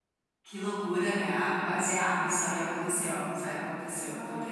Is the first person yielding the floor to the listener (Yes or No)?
Yes